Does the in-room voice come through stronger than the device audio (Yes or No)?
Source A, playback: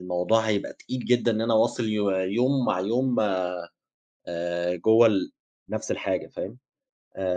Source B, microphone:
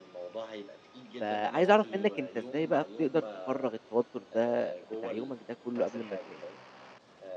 Yes